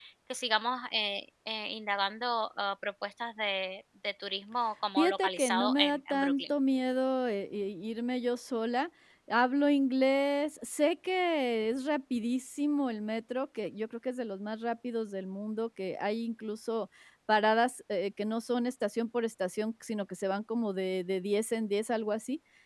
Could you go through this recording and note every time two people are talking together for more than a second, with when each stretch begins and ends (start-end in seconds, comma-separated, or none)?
5.0-6.5